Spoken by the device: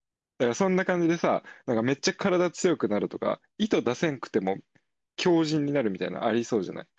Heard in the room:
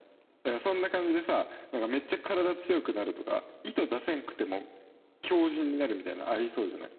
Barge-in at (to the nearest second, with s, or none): none